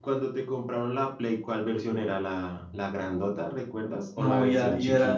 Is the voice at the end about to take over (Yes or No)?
Yes